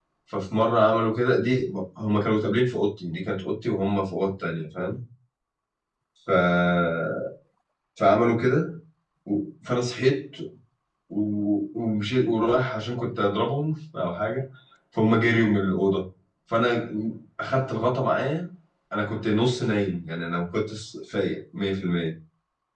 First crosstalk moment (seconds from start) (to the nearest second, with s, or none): none